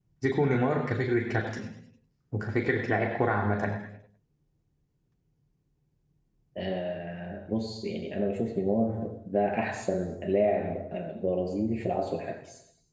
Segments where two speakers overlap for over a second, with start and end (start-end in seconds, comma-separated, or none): none